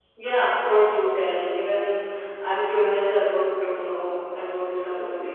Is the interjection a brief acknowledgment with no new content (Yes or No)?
No